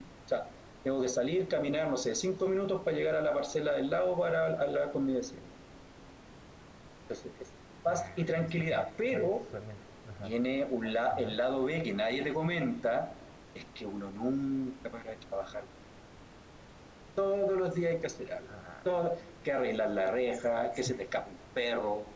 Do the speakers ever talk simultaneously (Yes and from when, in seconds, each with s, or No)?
Yes, from 7.9 s